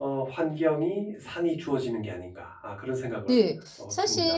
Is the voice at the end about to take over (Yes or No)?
Yes